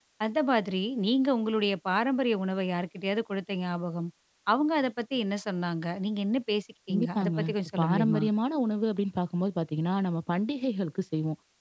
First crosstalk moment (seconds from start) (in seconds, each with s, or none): 6.9 s